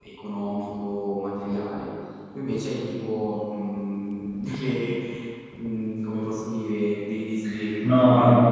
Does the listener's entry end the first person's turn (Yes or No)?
Yes